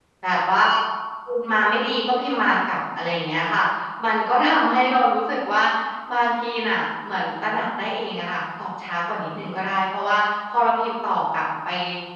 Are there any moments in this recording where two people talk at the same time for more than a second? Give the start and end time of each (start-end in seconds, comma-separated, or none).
none